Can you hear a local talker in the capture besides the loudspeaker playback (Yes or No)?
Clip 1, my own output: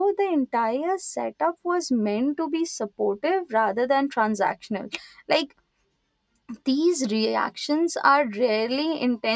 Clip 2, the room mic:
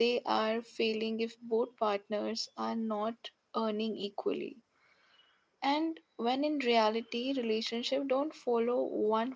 Yes